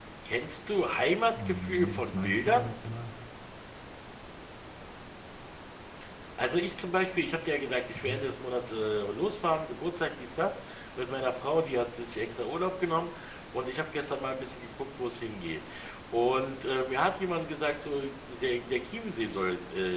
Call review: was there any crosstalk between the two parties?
Yes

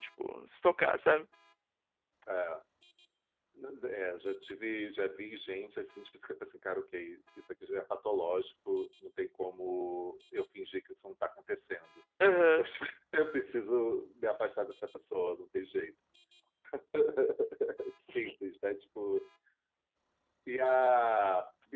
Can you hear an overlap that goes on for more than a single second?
No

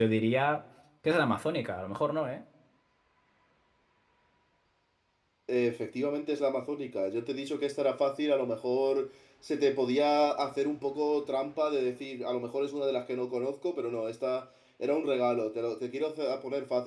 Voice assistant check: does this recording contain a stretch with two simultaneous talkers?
No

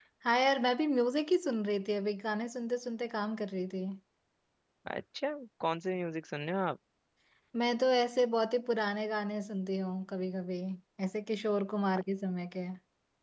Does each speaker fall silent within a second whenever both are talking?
Yes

